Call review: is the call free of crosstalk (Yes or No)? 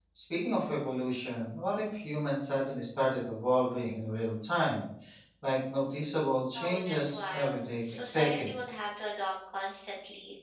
No